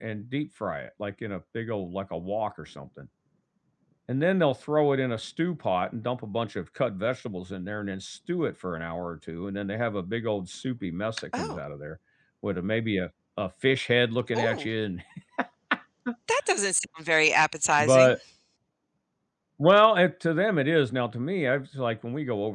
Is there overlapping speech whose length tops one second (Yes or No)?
No